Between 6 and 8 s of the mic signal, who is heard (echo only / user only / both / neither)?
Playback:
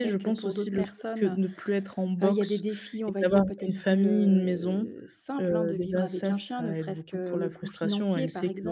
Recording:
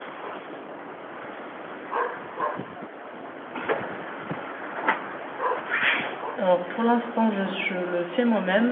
user only